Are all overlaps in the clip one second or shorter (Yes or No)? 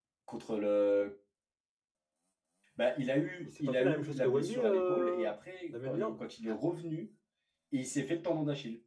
No